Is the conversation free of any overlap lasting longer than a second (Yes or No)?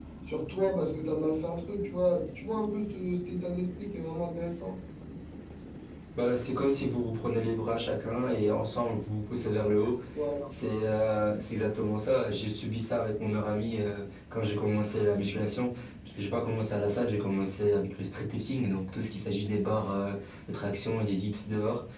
Yes